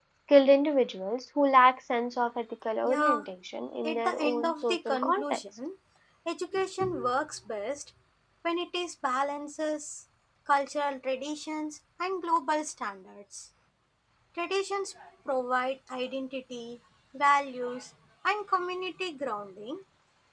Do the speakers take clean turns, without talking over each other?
No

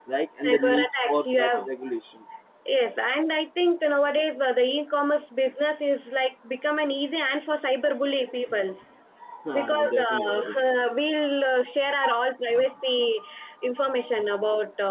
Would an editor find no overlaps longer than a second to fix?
No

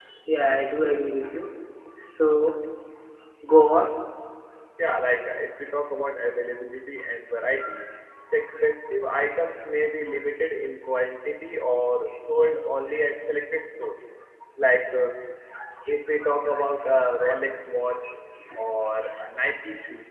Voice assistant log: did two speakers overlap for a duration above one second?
No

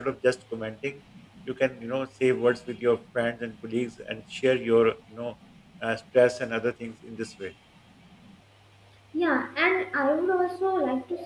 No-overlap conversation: Yes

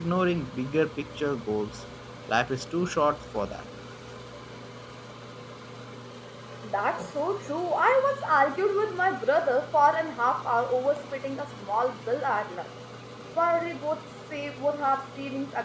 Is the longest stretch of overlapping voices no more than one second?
Yes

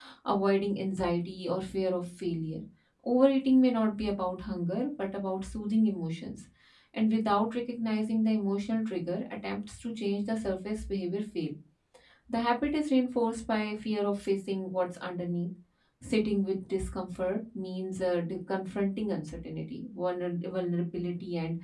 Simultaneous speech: No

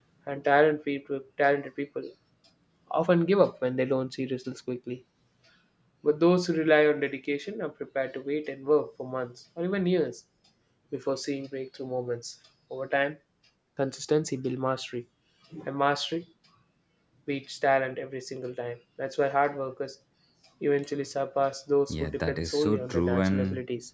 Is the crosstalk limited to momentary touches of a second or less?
No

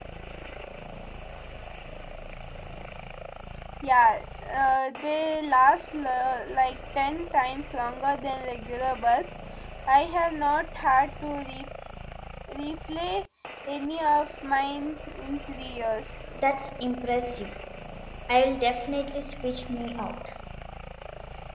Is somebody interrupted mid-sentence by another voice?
No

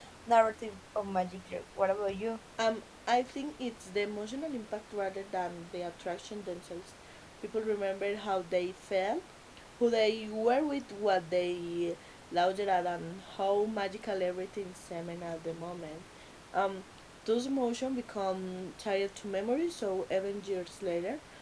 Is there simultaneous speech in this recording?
No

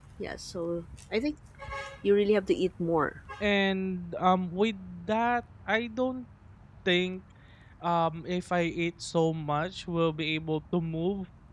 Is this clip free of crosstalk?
Yes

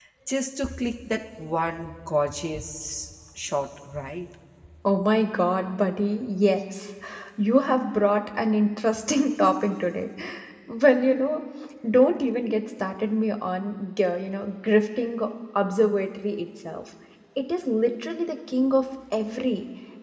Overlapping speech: No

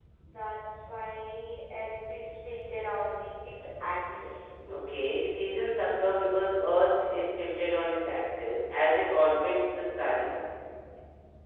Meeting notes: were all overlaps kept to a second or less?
Yes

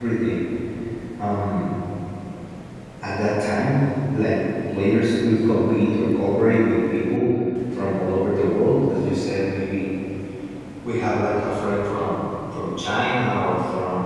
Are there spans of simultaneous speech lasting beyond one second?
No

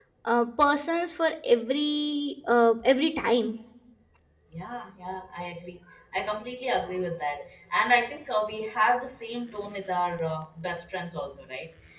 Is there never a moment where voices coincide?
Yes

